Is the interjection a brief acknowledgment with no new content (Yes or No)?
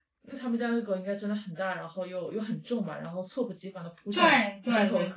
No